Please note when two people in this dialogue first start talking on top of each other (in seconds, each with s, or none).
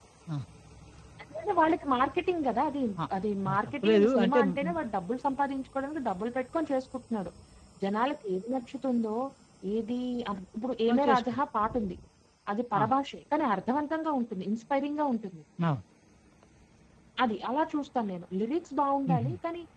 3.5 s